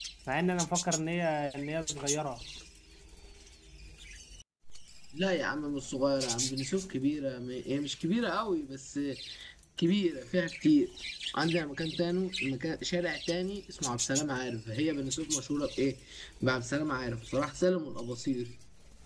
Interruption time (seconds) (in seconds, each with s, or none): none